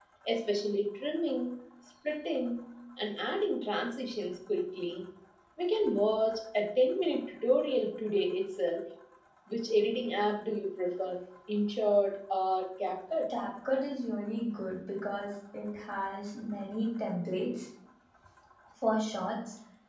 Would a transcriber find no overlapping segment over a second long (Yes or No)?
Yes